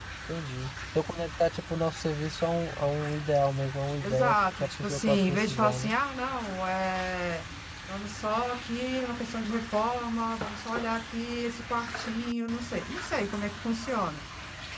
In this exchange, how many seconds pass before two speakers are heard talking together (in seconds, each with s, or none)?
4.0 s